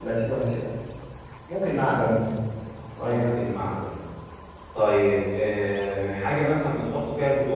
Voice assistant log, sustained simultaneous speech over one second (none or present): none